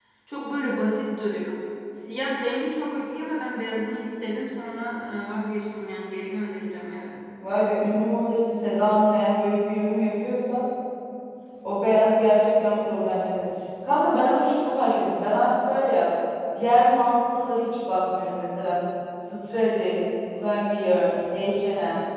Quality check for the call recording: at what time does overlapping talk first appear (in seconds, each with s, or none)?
none